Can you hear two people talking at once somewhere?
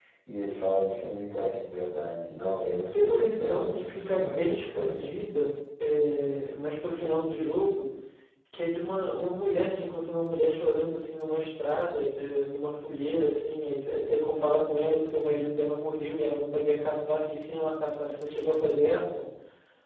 Yes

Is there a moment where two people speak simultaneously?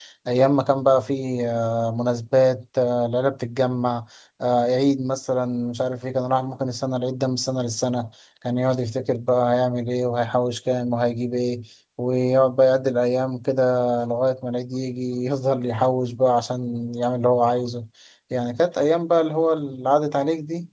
No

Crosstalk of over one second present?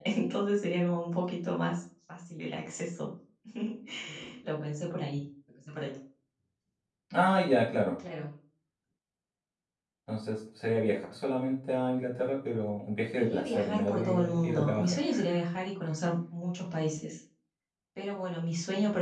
Yes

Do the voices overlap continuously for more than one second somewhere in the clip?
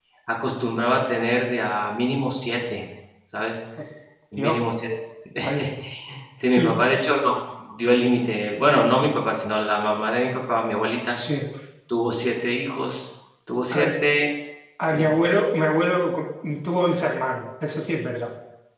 No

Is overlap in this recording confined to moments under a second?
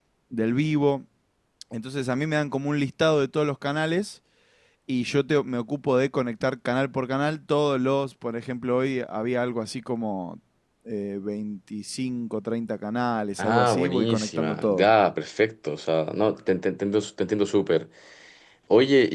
No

